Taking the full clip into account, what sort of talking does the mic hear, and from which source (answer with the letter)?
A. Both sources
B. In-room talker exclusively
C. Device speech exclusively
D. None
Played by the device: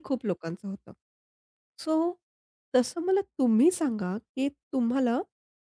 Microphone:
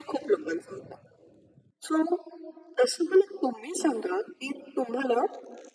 C